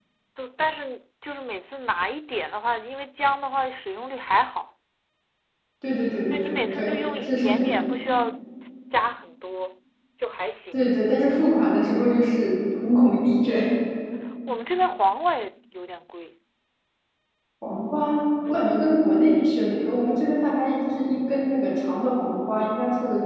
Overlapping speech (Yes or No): Yes